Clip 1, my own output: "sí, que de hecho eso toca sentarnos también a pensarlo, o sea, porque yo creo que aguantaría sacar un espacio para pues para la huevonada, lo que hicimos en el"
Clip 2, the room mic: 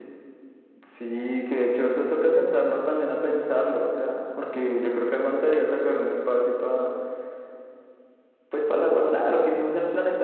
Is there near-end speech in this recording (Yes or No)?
No